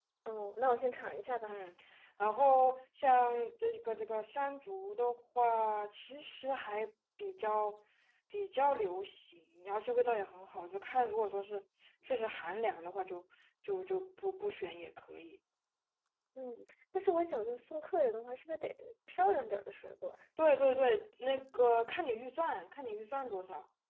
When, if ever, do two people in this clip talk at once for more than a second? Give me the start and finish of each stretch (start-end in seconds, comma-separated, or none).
none